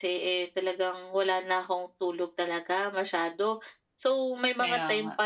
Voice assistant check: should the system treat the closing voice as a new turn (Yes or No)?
No